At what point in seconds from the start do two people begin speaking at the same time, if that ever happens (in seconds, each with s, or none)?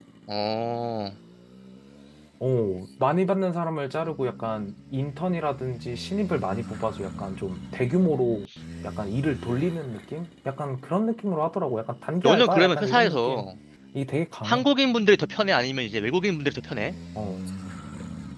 12.2 s